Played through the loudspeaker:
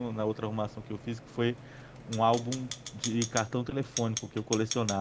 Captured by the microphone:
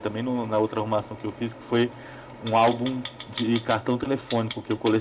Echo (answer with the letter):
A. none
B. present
B